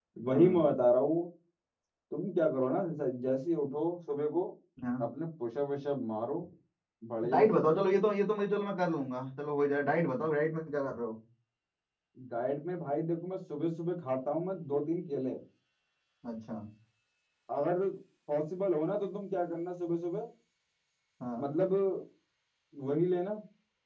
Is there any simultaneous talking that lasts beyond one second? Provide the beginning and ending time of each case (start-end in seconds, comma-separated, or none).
none